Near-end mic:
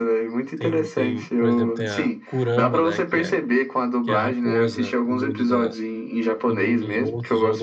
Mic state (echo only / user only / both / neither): both